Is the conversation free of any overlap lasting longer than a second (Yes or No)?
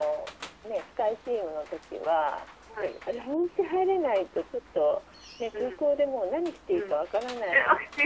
Yes